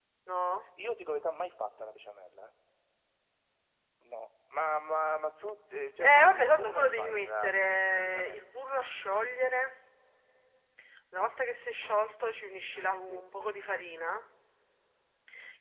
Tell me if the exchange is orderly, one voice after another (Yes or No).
No